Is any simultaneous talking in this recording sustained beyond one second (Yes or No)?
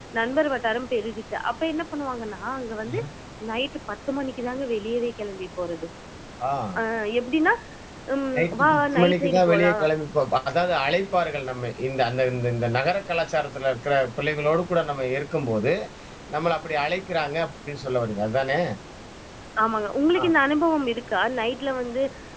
Yes